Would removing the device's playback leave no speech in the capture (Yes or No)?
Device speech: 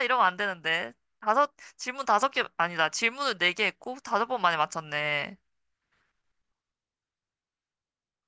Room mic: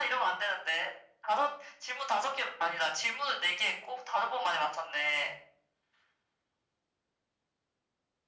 Yes